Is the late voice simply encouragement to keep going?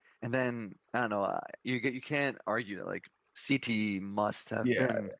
No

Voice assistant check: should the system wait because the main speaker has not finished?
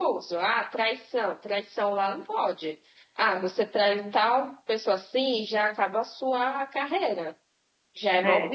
Yes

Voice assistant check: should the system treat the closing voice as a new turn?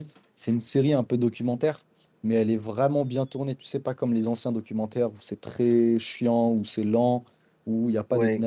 No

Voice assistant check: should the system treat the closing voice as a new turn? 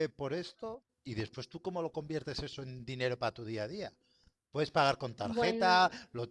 No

